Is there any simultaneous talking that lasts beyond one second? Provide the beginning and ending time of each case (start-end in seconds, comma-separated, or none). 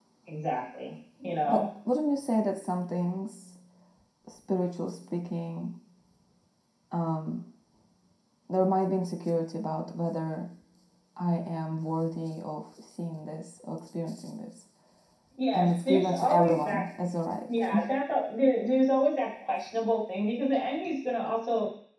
15.5-16.8